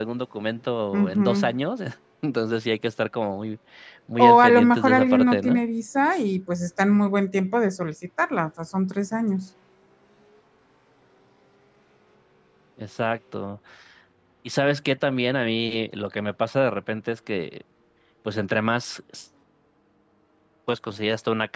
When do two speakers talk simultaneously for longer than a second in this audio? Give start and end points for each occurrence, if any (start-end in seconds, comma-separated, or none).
4.2-5.6